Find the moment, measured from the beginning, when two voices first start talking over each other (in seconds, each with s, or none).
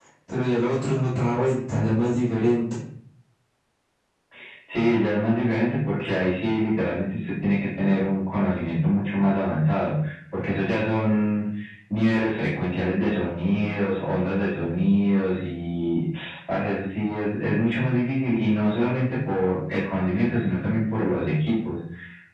none